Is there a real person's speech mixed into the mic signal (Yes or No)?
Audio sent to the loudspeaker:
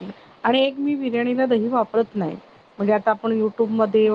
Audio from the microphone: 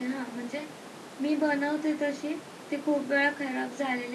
Yes